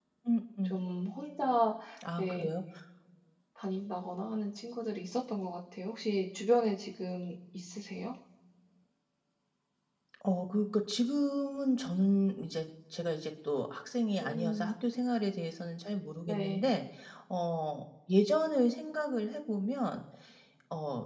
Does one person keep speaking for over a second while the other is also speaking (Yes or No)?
No